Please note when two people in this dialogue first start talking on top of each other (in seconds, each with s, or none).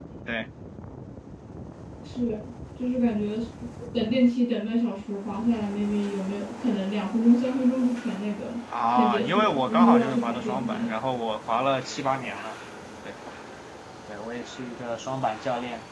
8.9 s